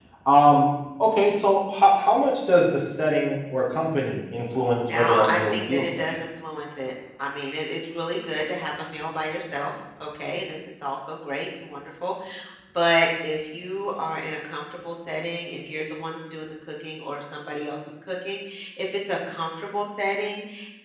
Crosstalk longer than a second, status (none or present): present